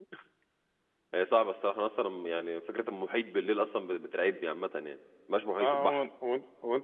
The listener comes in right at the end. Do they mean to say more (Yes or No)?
Yes